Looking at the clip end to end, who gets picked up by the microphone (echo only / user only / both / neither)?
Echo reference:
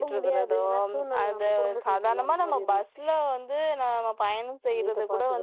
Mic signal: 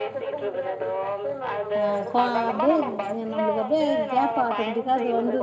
both